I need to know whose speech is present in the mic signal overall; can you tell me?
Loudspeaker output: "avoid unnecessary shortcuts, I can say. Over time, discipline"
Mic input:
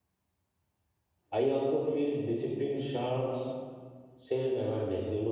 user only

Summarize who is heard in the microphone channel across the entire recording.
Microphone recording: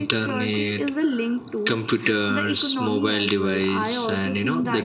echo only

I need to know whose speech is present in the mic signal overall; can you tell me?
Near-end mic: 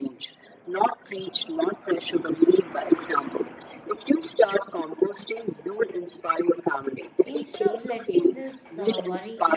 both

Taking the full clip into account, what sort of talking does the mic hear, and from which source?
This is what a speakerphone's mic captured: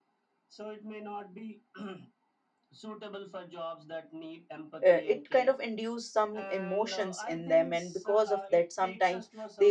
both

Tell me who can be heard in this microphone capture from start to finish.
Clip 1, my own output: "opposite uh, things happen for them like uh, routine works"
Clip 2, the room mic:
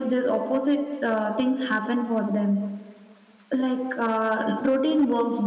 echo only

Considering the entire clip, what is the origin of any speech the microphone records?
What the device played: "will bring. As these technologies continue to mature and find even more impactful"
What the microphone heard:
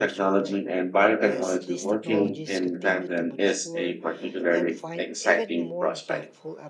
both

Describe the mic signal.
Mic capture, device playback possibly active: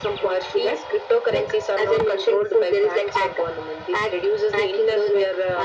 echo only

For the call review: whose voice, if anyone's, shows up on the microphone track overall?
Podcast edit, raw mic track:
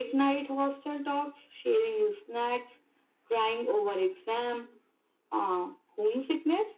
echo only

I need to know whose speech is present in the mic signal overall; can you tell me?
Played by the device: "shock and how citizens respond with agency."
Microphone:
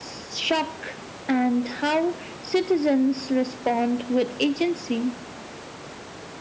echo only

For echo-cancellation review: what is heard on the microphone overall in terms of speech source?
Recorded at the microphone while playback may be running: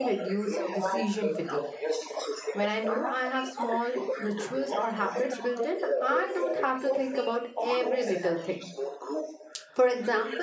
both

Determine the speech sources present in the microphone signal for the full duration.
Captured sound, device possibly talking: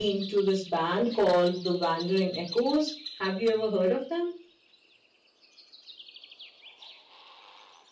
user only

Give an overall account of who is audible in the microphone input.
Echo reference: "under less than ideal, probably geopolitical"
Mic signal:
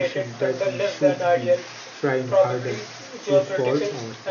both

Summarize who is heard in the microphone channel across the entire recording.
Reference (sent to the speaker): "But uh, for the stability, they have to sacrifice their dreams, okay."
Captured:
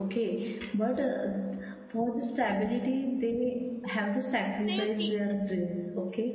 both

